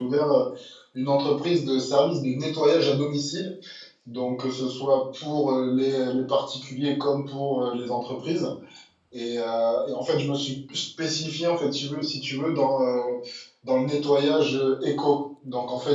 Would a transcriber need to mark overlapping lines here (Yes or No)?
No